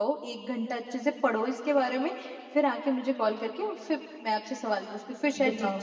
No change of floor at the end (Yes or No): No